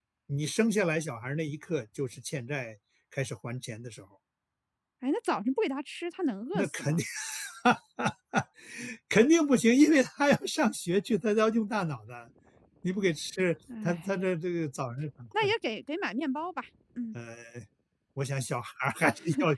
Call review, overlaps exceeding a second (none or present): none